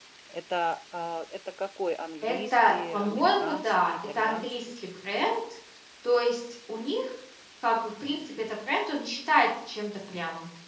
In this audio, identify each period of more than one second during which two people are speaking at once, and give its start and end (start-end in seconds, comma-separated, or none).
2.2-4.5